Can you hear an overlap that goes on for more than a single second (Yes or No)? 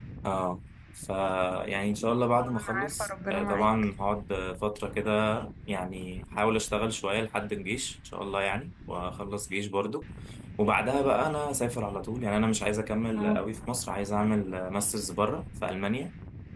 Yes